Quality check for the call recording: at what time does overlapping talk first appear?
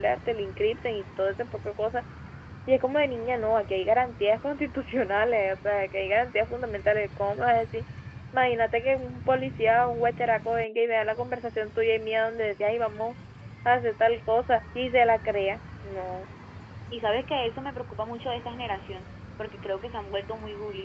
none

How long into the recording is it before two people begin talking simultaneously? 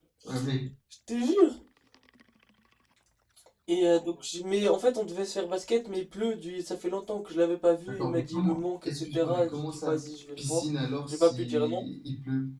8 s

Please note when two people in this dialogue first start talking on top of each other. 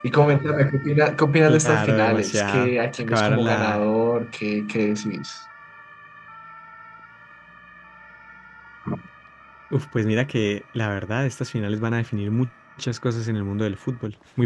1 s

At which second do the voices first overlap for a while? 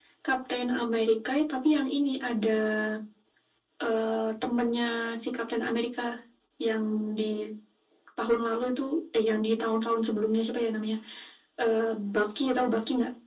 none

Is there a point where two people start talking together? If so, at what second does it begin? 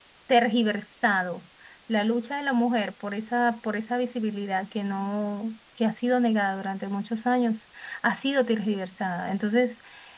none

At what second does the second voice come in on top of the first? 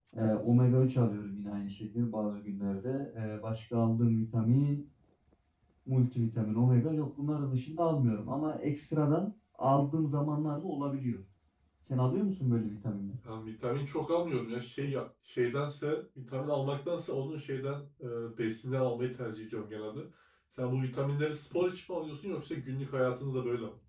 none

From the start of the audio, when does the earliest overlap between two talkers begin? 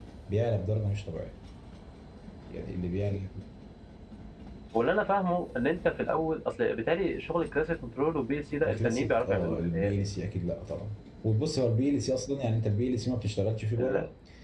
9 s

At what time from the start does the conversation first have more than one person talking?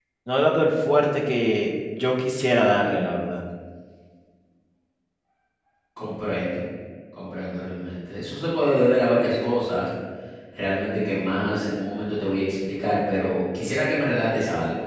none

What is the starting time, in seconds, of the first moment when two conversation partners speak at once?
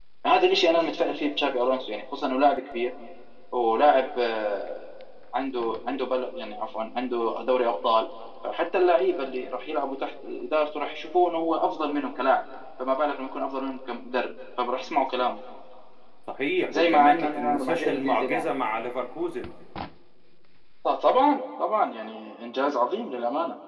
17 s

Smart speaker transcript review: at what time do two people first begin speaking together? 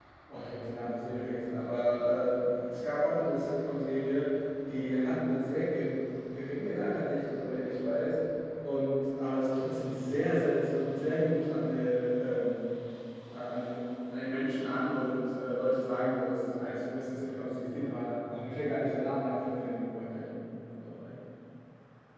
none

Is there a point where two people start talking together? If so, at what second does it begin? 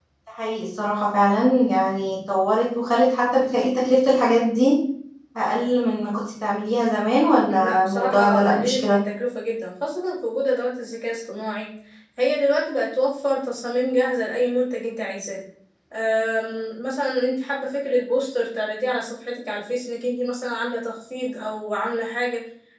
7 s

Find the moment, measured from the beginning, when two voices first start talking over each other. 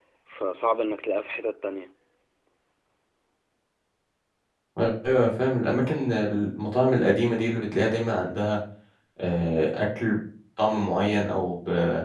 none

